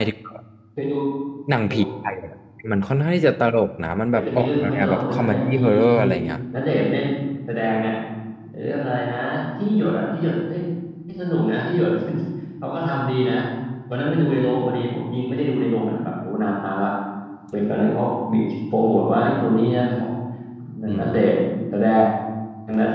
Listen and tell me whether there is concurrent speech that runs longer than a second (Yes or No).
Yes